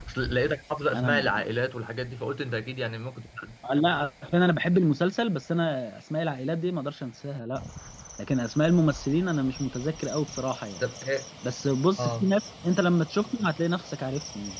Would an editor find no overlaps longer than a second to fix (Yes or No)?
Yes